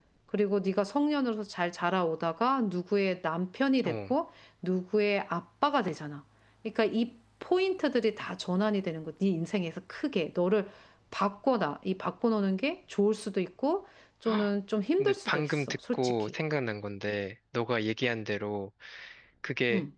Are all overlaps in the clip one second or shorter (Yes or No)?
No